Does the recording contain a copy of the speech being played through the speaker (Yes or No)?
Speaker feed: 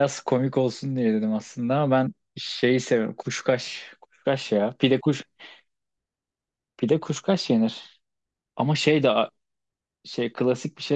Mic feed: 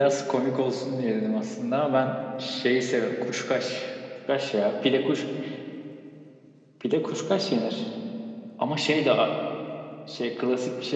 Yes